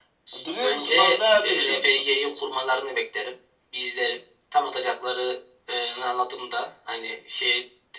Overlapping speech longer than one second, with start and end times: 0.5-2.1

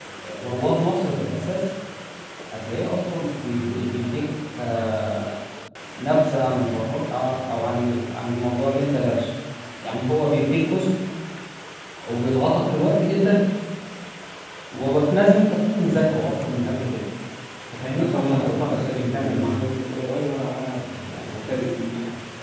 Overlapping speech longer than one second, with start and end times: 17.9-19.6

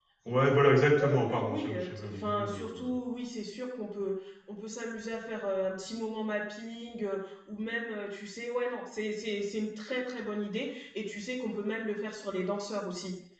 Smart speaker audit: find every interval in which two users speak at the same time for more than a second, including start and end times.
0.9-2.9

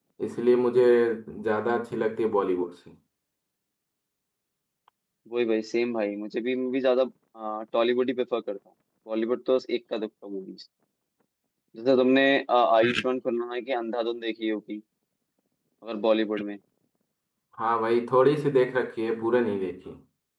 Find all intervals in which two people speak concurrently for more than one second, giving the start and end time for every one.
none

